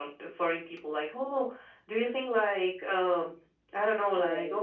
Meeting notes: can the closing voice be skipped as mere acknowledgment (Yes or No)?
Yes